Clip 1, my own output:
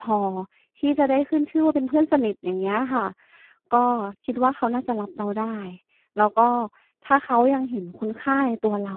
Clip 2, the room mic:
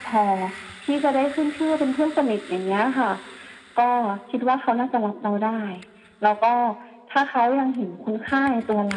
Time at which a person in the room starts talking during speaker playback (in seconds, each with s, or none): none